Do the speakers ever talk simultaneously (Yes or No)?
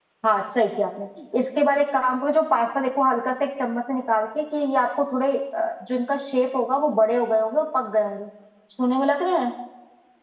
No